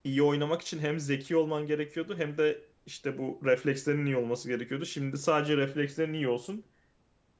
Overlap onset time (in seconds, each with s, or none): none